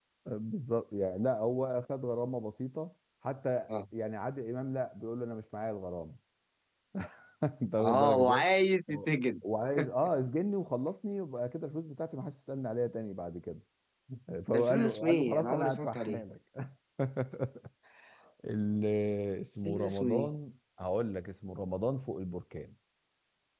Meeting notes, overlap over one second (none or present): present